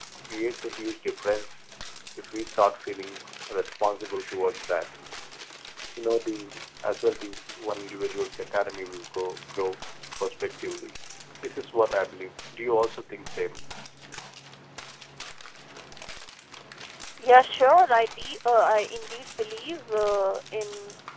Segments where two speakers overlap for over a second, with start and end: none

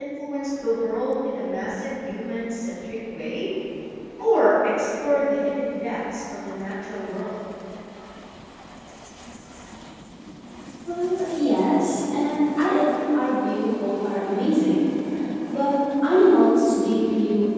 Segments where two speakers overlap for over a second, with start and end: none

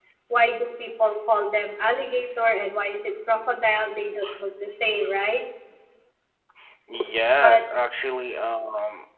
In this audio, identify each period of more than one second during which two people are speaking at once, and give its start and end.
none

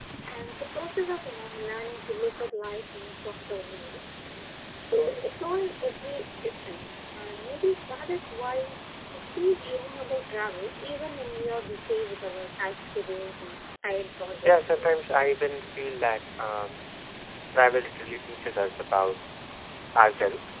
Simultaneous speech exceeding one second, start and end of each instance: none

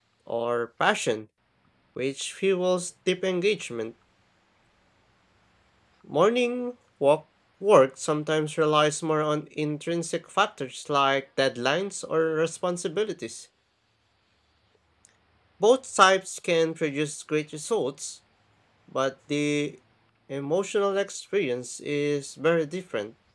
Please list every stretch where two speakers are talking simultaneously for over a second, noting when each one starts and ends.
none

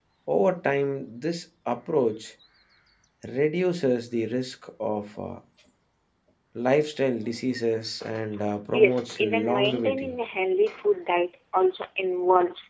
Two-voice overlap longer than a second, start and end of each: 8.7-10.2

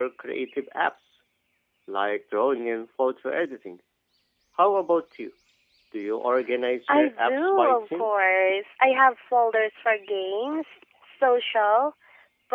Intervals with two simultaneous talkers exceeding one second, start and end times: 6.9-8.1

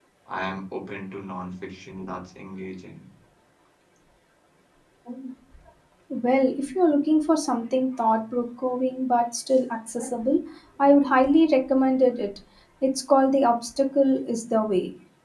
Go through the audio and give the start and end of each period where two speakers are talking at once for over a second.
none

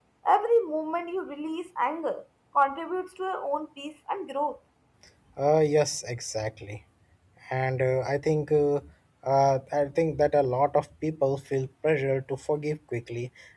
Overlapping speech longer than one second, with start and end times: none

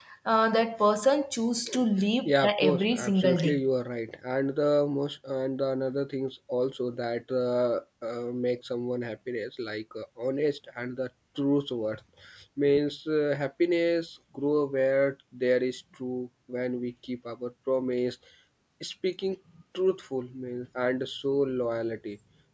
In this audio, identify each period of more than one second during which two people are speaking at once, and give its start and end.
2.2-3.6

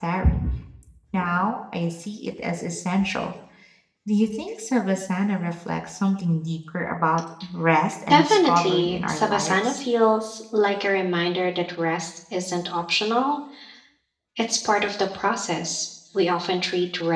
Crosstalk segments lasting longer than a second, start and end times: 8.1-9.8

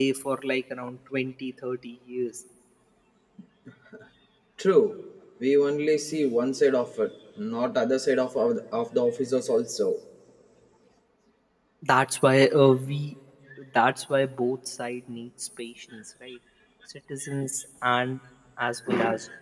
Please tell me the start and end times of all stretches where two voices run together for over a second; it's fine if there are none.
none

